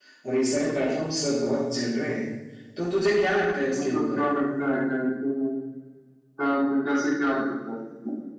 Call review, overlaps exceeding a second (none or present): none